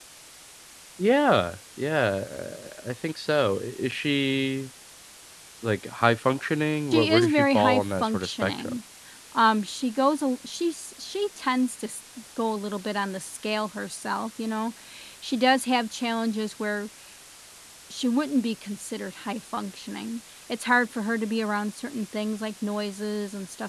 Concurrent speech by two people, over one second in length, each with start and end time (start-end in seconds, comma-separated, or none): 6.9-8.8